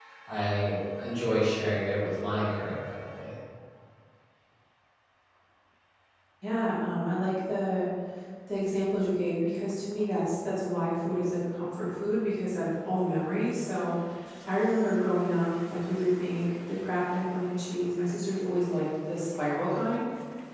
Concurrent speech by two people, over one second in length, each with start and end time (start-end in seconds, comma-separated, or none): none